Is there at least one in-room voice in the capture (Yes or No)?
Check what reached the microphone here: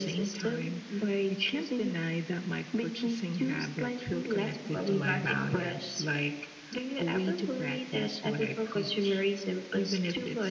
No